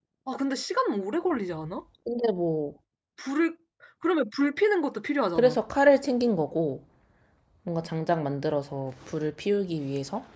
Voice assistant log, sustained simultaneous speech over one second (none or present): none